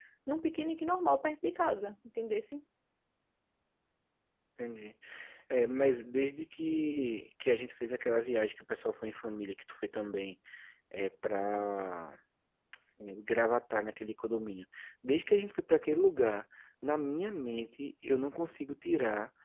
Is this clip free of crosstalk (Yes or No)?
Yes